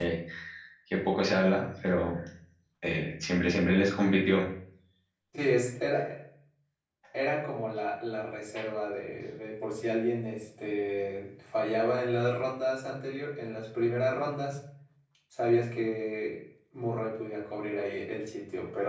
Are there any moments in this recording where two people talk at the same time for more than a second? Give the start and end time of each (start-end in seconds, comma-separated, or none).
none